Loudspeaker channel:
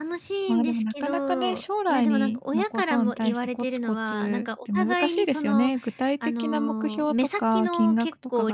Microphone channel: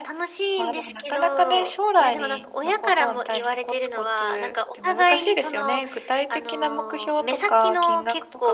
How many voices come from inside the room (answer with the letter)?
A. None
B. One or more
A